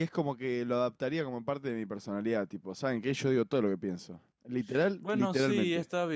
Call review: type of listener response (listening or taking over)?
taking over